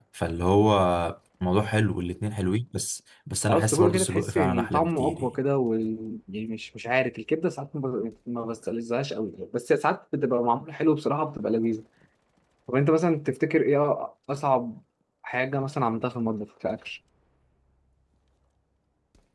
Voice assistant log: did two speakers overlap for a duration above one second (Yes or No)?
Yes